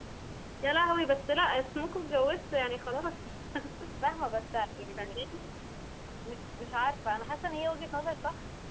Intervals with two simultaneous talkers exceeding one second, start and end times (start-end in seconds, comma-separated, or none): none